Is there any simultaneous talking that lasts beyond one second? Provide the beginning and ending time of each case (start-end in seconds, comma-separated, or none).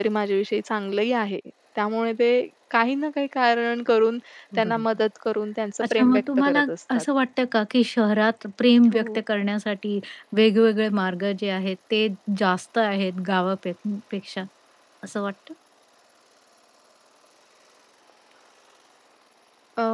5.8-7.0